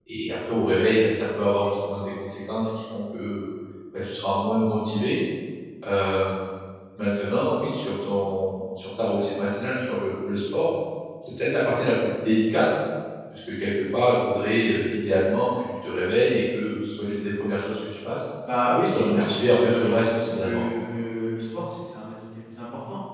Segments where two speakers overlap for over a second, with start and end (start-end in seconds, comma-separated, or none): 18.8-20.6